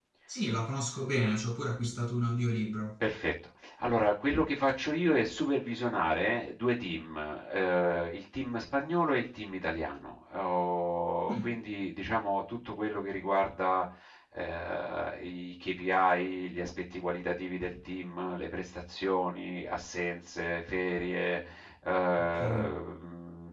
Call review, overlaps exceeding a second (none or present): none